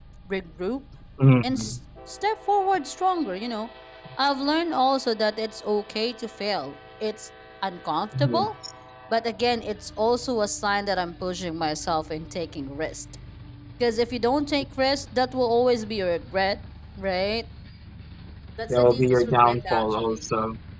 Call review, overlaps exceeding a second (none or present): present